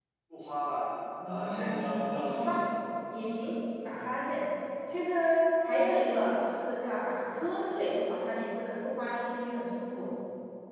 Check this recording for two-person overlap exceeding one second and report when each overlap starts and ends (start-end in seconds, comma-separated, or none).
1.2-2.6